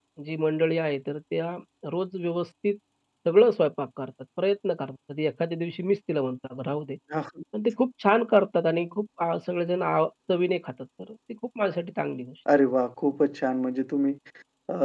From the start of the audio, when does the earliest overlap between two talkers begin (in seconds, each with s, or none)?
none